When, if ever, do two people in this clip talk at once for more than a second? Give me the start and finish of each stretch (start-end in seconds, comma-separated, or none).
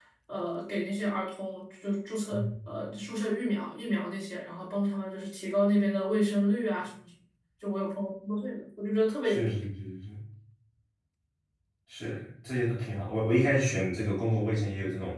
none